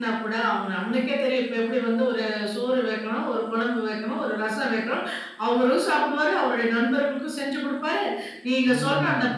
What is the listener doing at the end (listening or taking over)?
listening